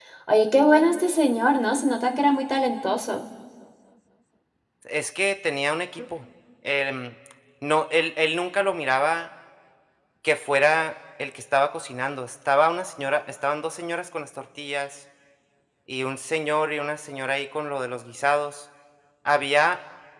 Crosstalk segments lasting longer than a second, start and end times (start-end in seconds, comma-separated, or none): none